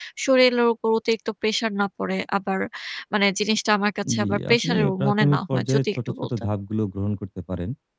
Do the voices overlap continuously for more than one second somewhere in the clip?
Yes, from 4.0 s

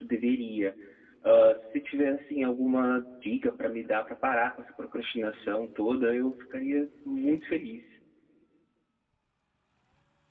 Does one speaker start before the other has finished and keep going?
No

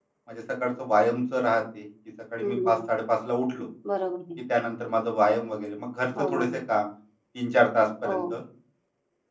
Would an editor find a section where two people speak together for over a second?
No

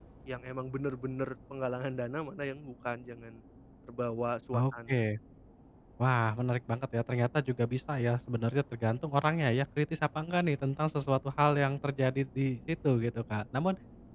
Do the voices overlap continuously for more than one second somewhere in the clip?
No

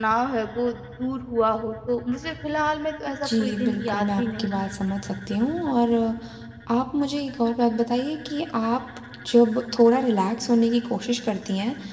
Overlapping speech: Yes, from 3.0 s

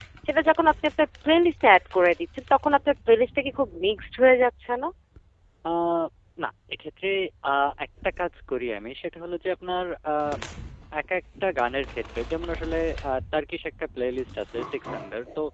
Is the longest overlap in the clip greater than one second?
No

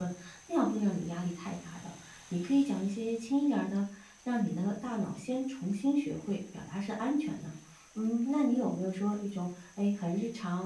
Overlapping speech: No

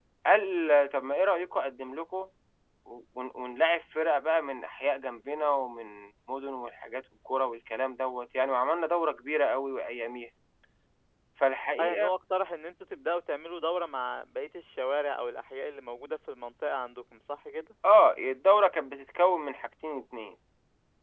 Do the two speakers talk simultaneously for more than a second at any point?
No

